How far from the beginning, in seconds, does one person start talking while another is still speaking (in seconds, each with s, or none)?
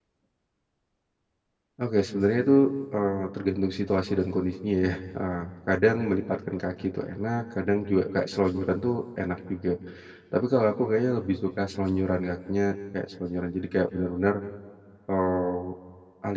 none